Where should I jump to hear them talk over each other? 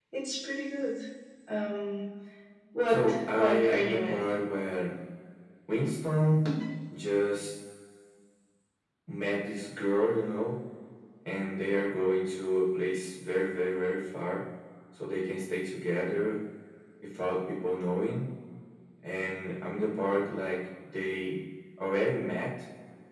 2.9 s

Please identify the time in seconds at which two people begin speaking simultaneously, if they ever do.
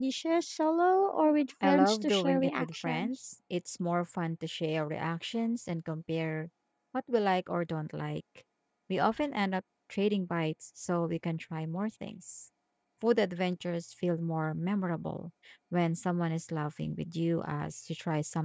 1.6 s

